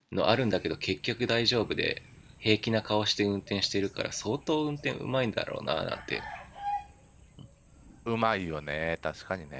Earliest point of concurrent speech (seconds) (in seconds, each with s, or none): none